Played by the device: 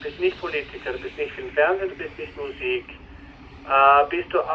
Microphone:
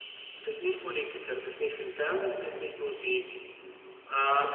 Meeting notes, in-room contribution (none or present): none